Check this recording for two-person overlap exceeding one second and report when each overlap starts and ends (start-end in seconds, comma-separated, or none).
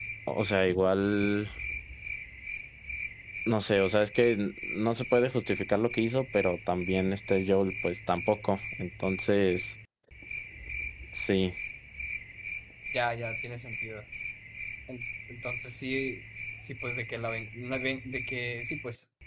none